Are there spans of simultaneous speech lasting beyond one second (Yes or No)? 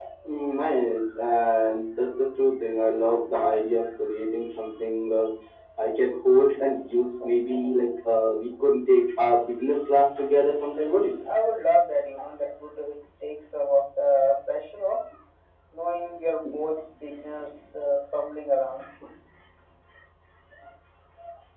No